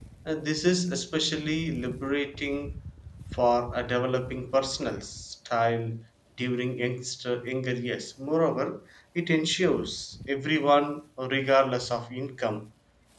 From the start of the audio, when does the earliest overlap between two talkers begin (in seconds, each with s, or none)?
none